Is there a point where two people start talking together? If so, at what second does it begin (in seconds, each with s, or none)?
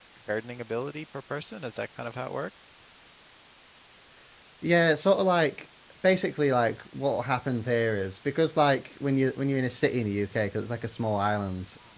none